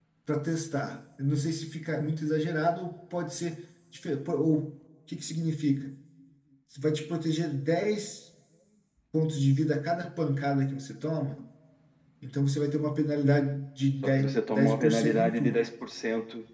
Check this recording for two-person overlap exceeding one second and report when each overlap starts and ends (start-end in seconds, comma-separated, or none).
14.0-15.7